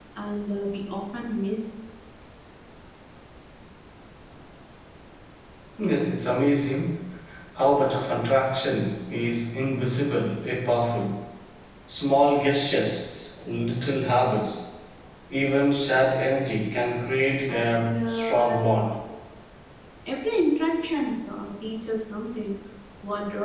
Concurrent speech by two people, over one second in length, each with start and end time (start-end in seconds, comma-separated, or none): 17.5-18.9